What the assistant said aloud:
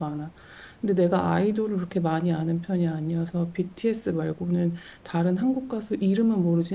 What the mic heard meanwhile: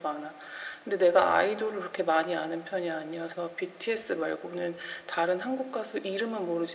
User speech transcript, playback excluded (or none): none